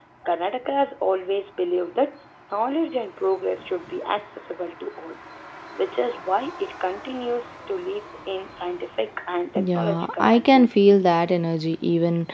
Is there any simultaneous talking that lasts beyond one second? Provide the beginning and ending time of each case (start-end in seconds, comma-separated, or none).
9.6-11.2